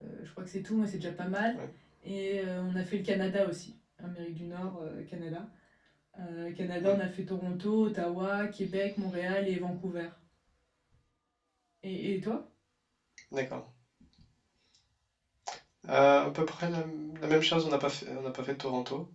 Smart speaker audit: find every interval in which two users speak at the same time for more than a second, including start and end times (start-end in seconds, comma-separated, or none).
none